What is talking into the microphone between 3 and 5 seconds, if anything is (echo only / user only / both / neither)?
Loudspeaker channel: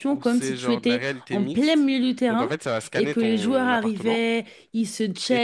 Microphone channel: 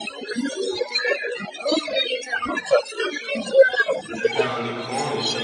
both